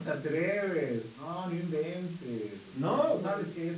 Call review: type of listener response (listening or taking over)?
listening